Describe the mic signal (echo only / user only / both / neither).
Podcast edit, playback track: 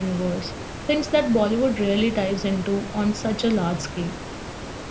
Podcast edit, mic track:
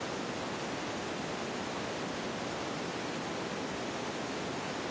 neither